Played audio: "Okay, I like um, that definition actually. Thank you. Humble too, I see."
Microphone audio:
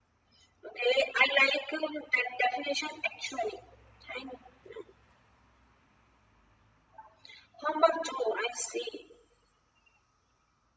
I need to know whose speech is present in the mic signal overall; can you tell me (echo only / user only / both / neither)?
echo only